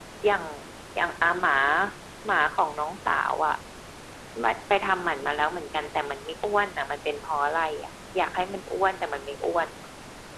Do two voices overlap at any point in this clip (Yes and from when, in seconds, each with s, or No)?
No